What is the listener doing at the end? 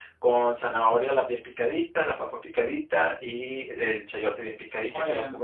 listening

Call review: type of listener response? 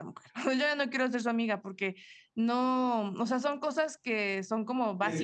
taking over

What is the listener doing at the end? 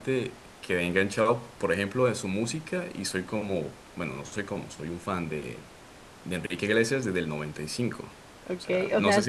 taking over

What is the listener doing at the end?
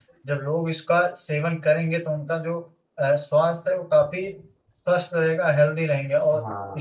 listening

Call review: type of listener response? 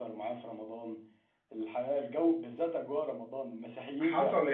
taking over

